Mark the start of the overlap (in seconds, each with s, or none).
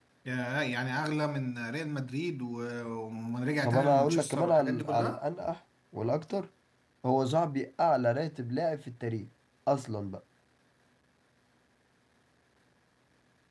3.6 s